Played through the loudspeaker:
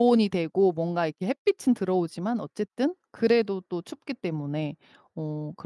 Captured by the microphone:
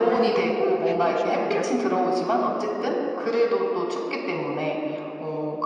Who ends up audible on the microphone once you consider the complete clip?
both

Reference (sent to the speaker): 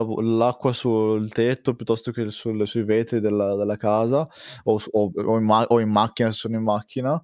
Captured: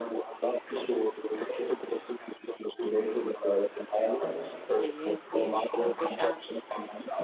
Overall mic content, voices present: both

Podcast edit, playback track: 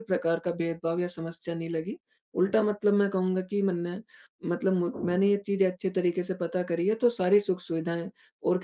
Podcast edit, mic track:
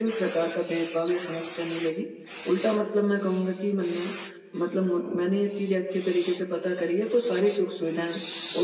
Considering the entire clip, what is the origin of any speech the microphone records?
echo only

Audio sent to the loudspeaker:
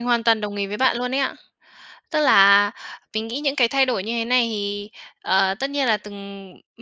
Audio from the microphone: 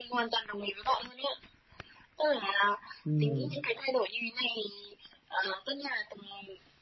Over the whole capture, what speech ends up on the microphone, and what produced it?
both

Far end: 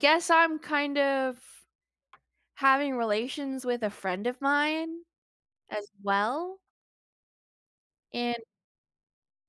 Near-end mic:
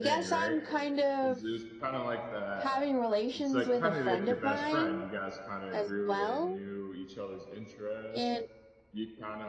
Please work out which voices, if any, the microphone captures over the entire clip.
both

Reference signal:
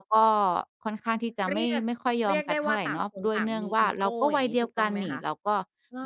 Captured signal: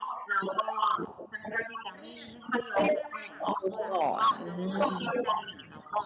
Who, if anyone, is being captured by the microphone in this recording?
both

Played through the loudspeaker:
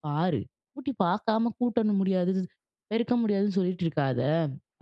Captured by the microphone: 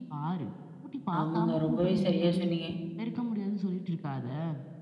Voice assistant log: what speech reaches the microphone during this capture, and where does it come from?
both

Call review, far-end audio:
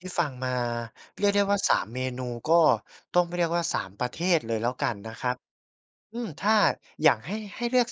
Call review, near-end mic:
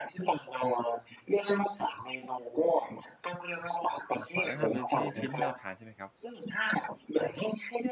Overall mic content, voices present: both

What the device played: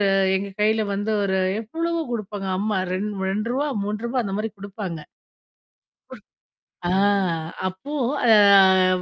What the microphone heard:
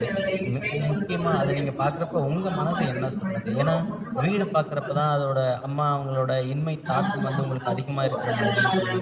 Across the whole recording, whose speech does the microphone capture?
both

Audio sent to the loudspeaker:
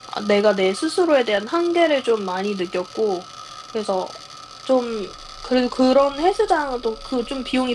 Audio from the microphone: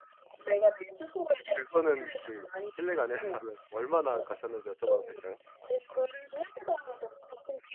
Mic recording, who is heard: both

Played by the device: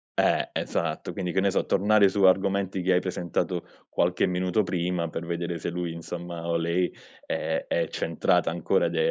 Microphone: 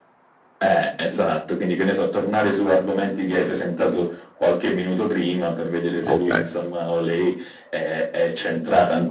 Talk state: both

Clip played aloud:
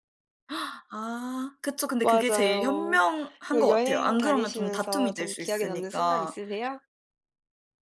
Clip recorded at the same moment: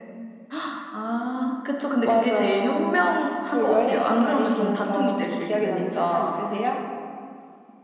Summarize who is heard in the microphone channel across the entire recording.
echo only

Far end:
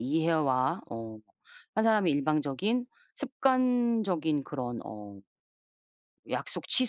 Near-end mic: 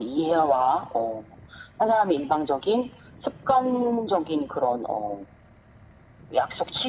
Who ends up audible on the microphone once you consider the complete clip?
echo only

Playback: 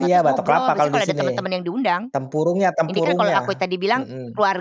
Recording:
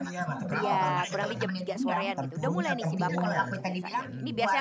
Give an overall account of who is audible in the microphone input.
both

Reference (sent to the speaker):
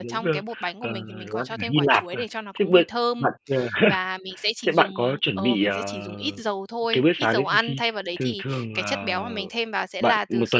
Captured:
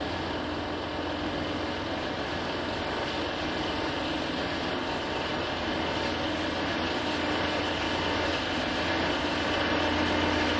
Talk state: neither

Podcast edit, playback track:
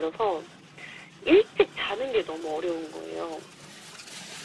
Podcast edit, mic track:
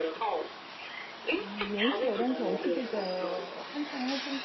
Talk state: both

